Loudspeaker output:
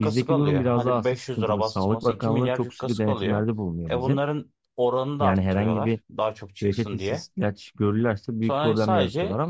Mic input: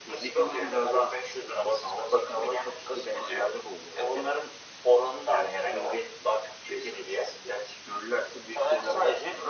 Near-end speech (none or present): none